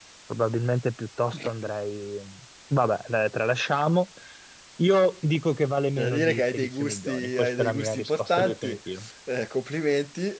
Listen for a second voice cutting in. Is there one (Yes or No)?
Yes